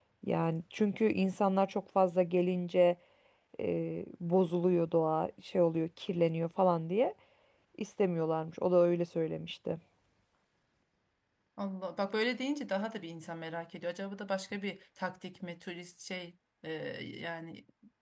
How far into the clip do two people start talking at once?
none

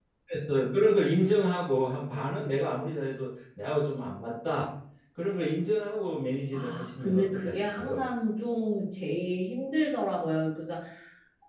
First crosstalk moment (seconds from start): 6.5 s

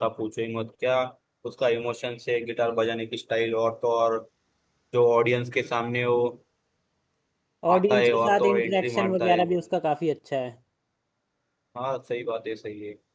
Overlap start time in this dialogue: 7.7 s

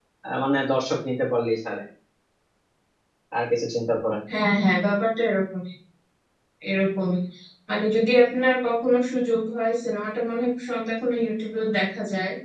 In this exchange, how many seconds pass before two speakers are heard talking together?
none

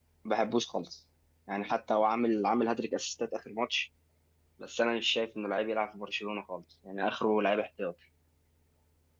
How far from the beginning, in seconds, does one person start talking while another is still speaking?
none

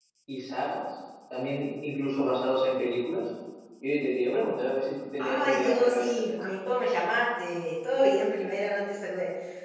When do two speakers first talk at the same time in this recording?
5.2 s

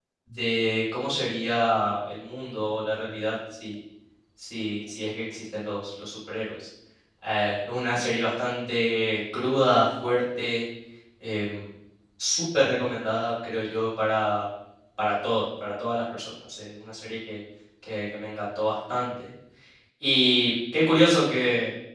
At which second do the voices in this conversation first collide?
none

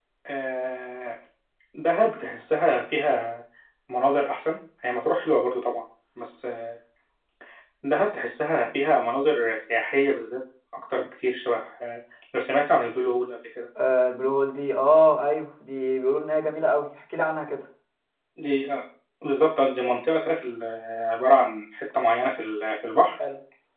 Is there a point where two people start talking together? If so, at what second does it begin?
none

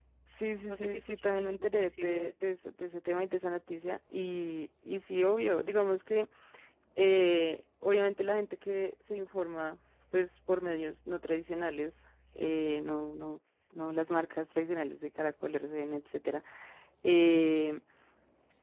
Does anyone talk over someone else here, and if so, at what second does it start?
0.7 s

